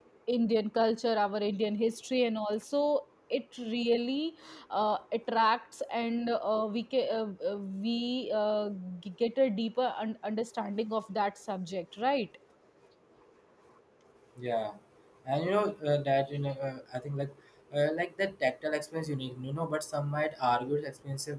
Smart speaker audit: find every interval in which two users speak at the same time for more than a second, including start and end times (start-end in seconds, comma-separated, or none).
none